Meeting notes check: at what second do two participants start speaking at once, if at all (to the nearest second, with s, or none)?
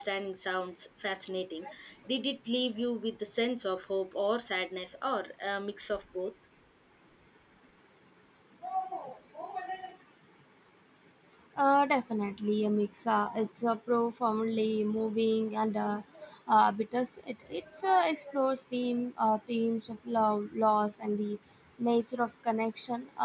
none